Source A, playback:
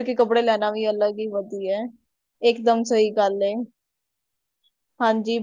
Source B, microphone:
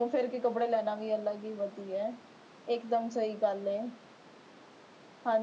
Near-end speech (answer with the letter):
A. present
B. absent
B